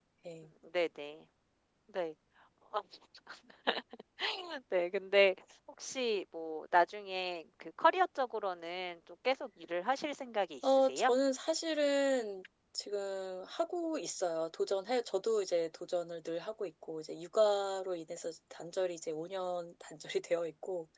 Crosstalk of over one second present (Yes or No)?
No